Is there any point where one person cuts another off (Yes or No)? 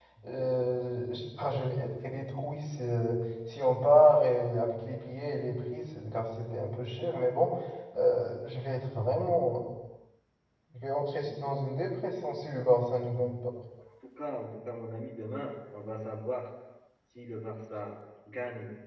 No